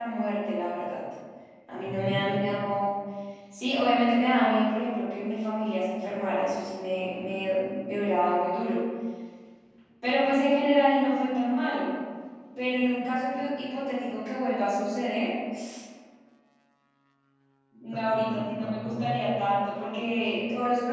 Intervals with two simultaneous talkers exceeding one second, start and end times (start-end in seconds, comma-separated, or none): 18.0-19.2